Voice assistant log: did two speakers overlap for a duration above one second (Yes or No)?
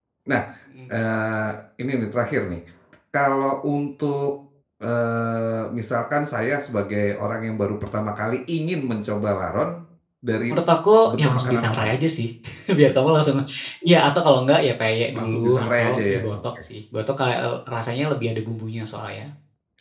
Yes